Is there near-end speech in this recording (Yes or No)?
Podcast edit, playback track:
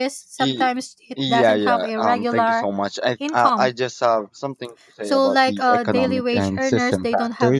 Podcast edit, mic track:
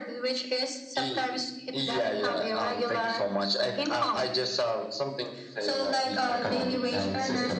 No